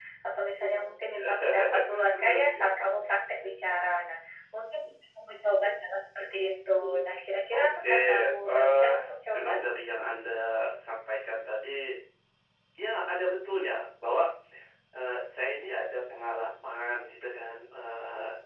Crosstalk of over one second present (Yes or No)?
Yes